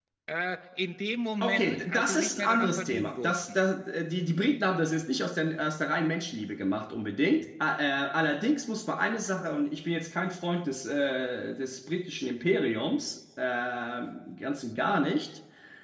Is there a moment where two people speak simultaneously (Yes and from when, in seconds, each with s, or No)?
Yes, from 1.4 s